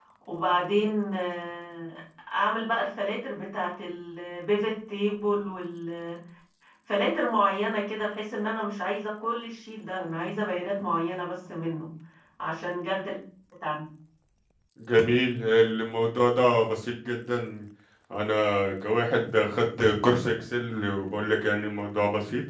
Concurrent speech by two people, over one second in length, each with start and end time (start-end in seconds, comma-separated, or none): none